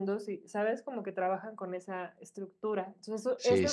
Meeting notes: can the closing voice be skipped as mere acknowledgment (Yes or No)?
No